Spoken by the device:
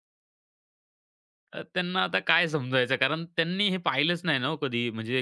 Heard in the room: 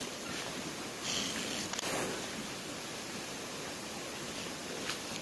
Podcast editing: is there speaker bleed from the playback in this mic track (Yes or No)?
No